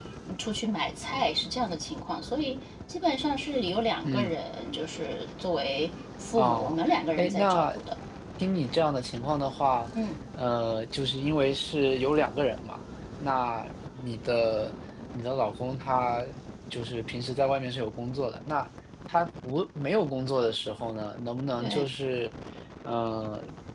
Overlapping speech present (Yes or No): Yes